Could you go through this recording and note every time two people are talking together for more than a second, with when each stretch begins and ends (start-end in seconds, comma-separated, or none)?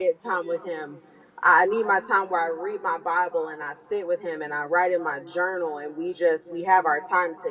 none